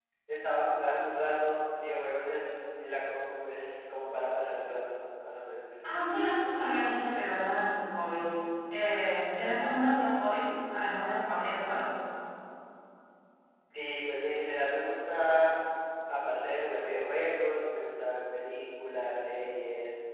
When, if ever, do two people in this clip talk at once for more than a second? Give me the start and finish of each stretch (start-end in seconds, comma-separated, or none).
none